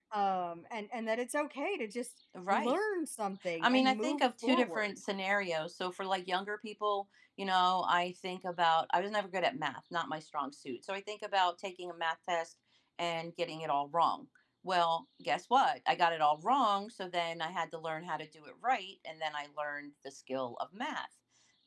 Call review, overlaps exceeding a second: present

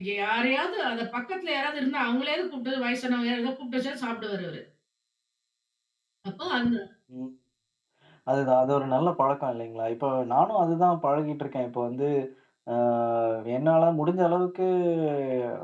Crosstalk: none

